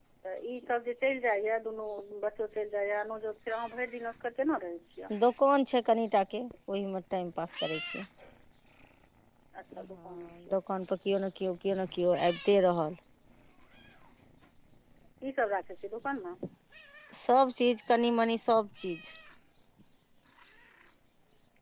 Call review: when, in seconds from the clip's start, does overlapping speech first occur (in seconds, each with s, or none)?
none